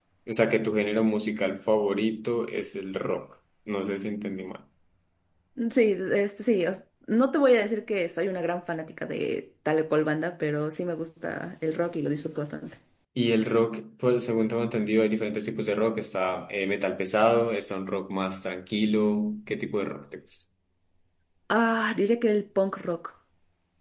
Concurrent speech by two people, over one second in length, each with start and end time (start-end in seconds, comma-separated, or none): none